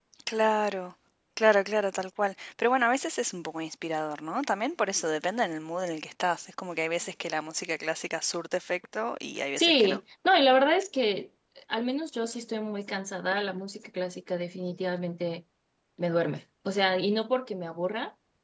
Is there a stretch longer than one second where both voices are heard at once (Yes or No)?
No